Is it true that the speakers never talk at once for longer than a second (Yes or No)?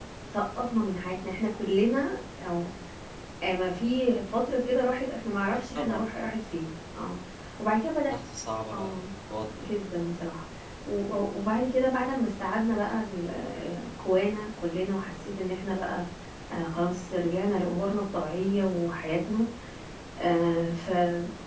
Yes